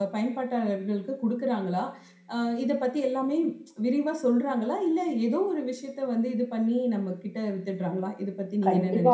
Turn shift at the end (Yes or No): Yes